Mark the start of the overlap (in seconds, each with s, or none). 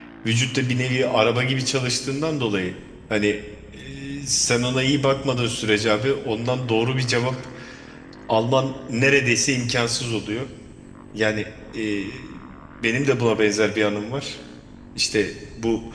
none